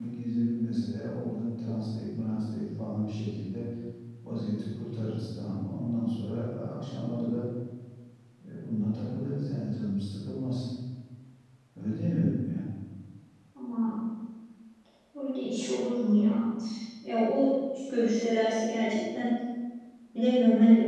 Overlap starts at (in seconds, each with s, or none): none